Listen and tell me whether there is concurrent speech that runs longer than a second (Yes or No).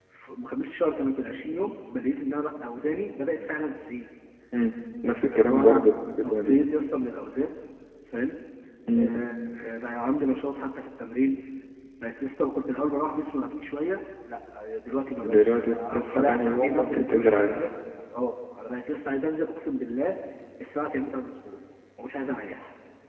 Yes